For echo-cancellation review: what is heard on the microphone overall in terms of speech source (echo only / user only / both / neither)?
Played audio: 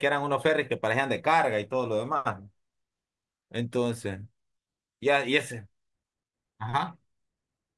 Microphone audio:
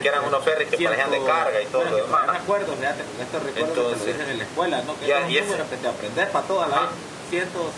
both